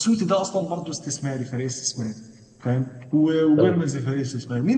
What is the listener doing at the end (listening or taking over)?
listening